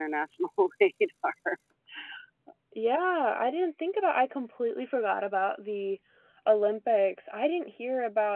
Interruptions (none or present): none